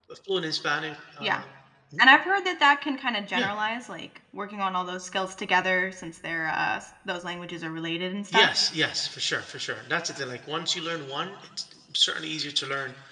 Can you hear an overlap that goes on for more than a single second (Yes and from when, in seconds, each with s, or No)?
No